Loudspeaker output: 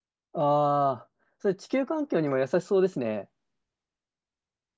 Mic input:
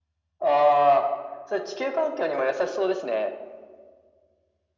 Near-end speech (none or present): none